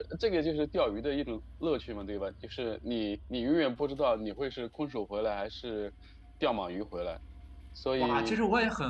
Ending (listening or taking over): taking over